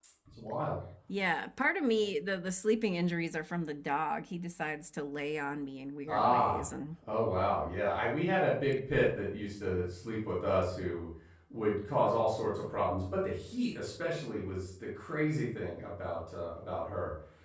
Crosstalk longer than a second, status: none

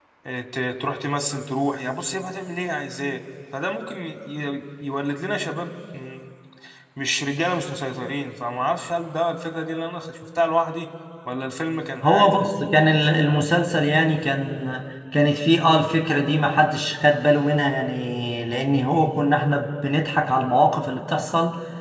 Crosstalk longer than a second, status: none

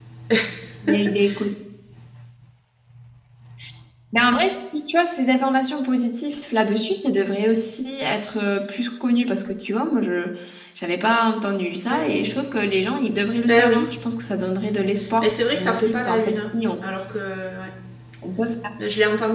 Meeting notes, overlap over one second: present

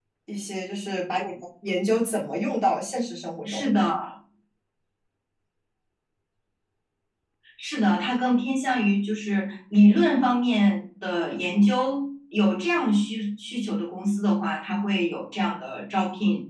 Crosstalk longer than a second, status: none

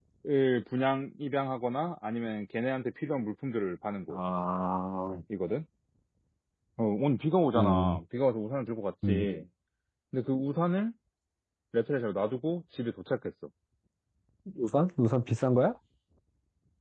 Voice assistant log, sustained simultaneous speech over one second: none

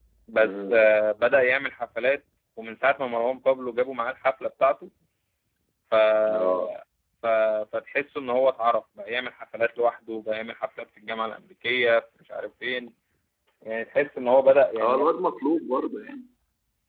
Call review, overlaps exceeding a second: none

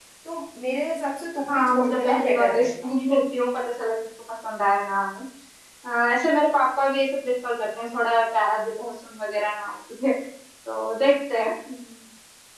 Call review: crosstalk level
present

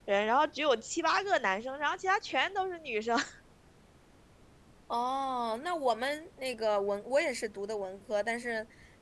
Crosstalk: none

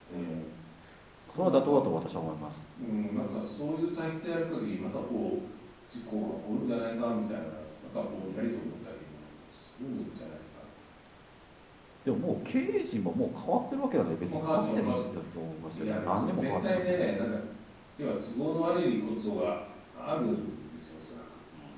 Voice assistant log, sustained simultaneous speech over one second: present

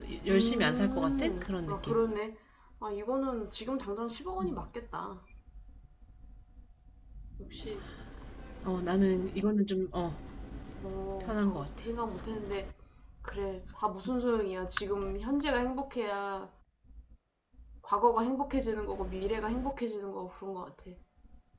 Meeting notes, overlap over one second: present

